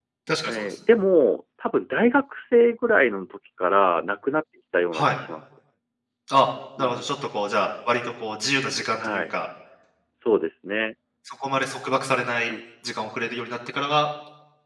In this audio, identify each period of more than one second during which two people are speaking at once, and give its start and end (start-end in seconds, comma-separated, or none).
none